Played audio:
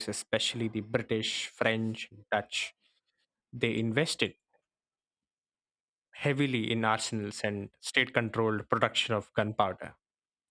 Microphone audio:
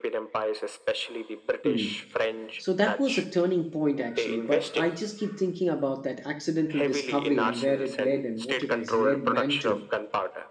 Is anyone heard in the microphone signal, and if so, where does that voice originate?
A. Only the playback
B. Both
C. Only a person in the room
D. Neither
B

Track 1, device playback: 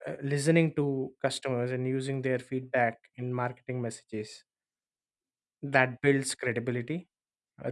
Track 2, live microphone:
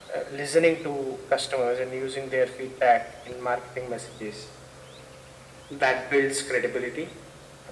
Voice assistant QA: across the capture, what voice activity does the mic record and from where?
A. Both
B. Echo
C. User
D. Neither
B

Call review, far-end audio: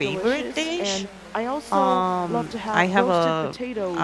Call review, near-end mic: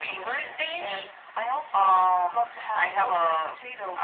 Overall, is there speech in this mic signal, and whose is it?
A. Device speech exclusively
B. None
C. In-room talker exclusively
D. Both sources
A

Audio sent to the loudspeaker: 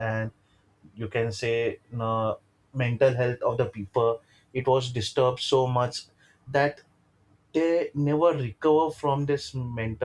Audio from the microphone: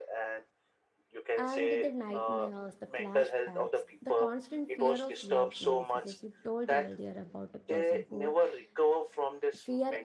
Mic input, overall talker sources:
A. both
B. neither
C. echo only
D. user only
A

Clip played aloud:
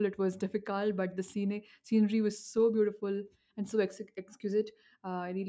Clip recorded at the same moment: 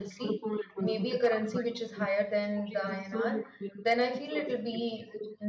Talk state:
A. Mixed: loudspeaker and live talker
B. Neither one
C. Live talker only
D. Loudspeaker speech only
A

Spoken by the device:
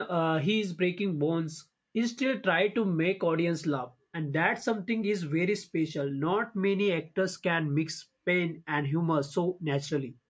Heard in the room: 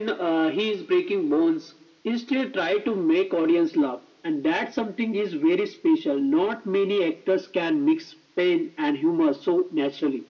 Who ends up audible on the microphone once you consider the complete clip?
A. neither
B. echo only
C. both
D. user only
B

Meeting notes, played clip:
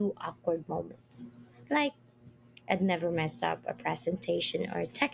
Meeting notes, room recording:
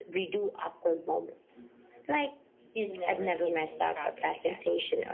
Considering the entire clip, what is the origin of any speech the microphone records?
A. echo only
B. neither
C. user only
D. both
D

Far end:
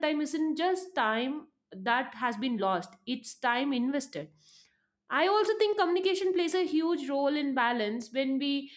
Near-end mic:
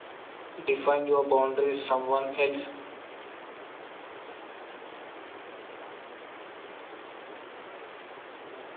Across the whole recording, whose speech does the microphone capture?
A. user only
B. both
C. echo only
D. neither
A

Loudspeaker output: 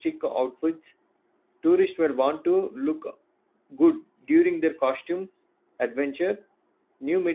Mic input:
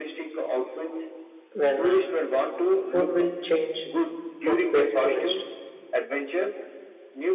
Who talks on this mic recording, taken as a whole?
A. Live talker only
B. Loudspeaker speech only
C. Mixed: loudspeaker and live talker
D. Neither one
C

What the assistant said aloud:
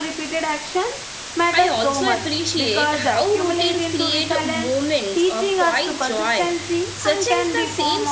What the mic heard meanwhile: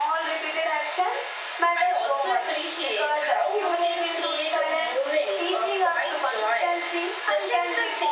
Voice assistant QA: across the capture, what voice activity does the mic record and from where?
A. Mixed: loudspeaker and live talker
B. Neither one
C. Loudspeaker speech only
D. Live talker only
C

